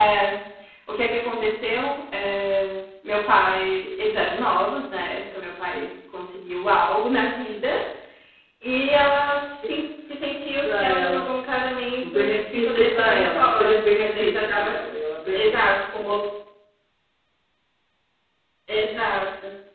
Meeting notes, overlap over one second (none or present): present